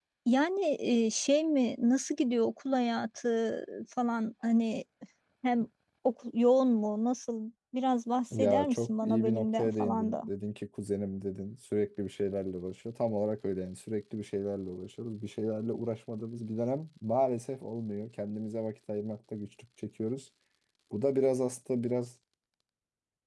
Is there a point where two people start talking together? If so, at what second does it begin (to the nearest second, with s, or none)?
8 s